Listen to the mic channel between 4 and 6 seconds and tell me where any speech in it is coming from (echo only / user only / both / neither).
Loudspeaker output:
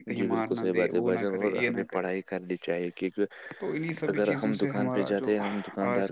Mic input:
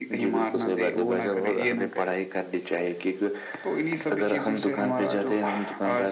echo only